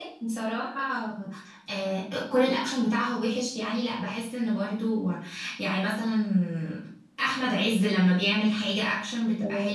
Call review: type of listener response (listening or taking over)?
taking over